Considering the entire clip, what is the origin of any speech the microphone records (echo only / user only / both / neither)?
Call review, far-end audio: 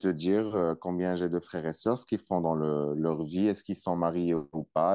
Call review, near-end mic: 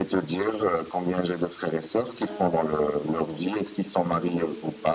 both